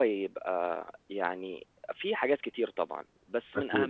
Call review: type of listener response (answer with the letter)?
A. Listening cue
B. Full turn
A